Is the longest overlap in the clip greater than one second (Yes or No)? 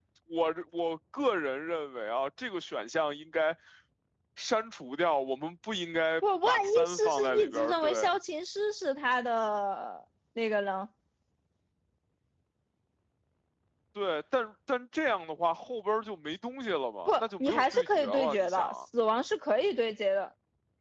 Yes